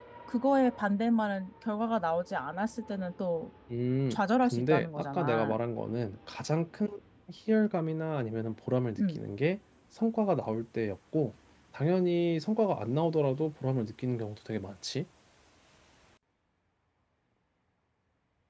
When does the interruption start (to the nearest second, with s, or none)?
4 s